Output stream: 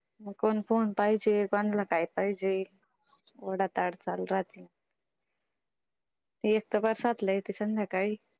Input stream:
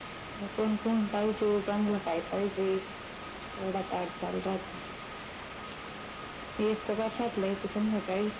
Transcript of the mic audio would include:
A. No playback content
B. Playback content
B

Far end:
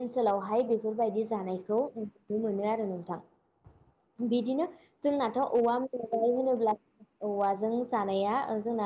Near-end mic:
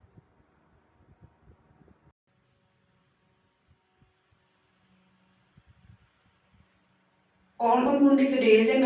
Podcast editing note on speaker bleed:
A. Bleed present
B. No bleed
B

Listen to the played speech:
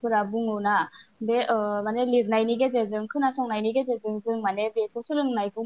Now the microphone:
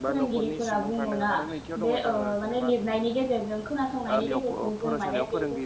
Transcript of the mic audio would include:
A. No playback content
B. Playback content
B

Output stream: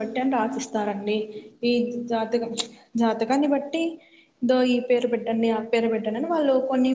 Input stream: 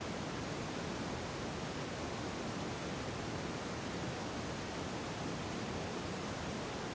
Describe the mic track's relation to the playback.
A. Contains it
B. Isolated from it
B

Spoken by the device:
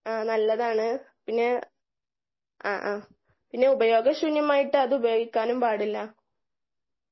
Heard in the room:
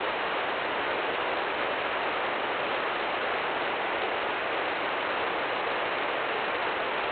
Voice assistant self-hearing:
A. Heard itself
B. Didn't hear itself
B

